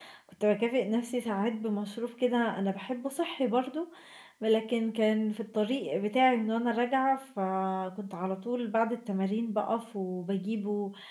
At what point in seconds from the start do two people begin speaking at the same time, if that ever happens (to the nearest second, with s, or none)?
none